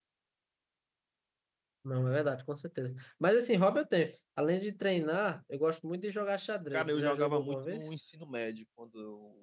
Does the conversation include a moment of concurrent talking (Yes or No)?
Yes